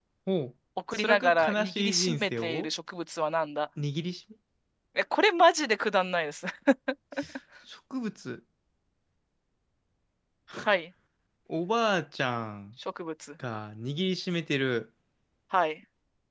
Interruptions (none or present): present